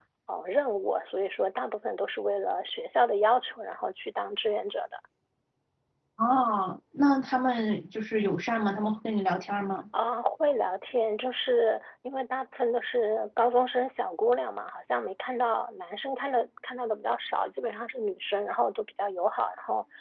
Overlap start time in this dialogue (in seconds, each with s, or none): none